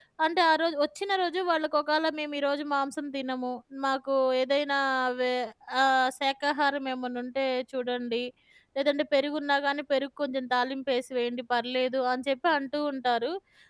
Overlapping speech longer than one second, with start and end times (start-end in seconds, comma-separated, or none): none